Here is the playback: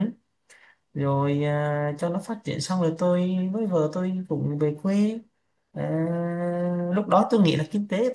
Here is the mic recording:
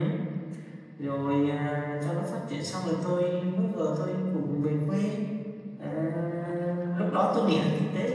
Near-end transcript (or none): none